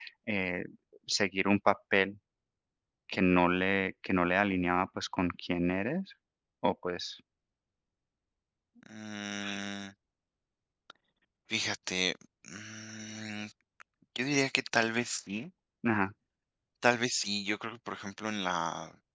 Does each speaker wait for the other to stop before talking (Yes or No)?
Yes